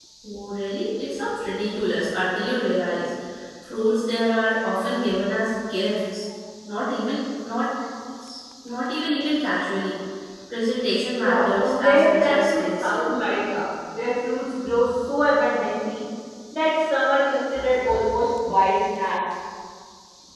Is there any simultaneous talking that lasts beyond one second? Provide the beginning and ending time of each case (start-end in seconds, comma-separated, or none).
11.1-13.0